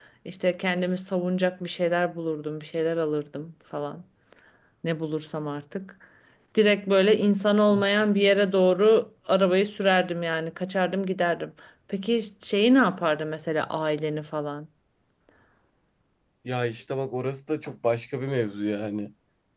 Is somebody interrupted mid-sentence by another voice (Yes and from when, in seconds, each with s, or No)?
No